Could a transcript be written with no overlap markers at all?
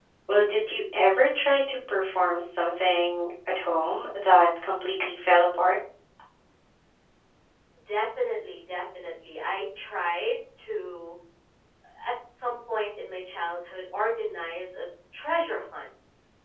Yes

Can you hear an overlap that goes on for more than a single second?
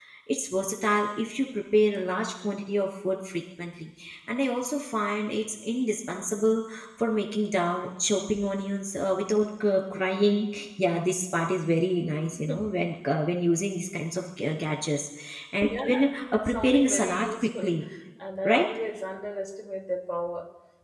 Yes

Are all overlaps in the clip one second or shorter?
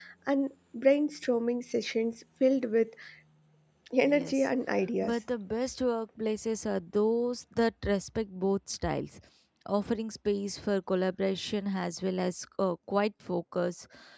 Yes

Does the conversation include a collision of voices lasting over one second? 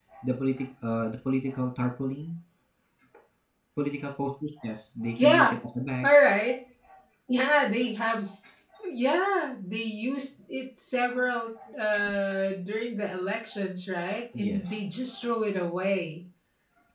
No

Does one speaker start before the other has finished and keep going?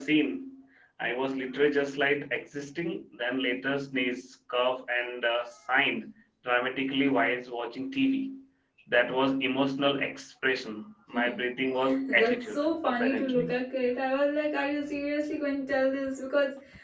Yes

